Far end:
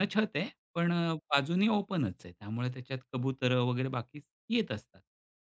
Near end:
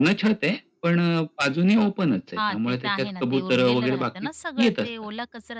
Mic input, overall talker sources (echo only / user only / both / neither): both